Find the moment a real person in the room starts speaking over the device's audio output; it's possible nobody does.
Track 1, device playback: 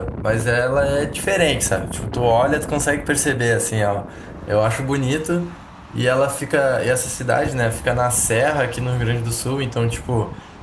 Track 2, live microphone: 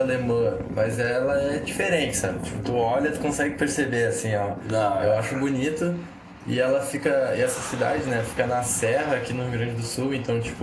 4.6 s

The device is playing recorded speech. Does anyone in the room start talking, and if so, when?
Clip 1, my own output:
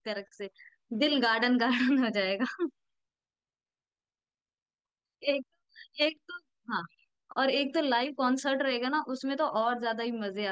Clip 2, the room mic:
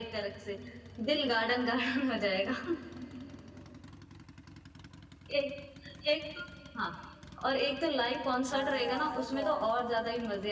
8.5 s

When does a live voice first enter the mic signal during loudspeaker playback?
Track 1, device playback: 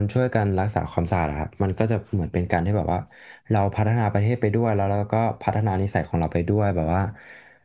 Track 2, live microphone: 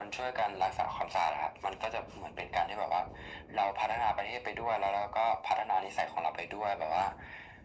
none

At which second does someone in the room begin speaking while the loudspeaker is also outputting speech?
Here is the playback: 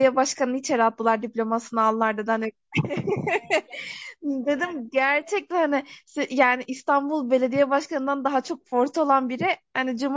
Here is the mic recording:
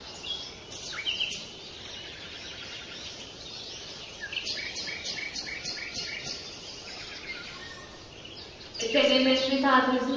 8.8 s

